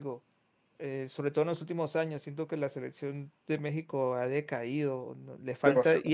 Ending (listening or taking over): listening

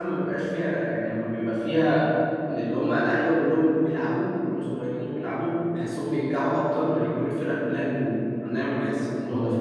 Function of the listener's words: listening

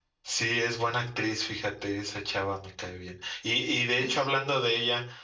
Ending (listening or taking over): listening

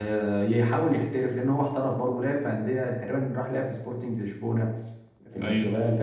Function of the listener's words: listening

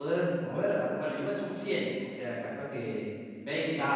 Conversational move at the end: taking over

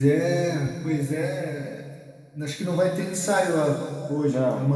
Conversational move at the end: taking over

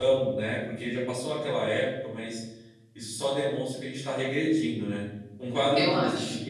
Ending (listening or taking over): listening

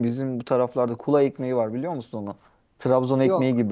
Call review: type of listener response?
listening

